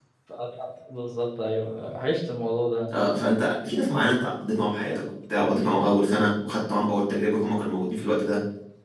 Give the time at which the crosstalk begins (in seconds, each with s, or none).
none